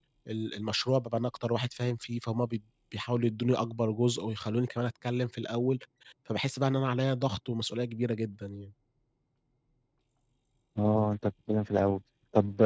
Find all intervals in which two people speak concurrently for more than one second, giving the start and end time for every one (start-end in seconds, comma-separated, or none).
none